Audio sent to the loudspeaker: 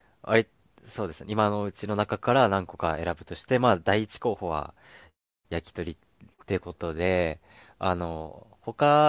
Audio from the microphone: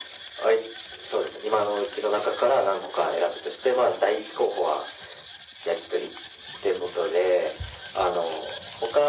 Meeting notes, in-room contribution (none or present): none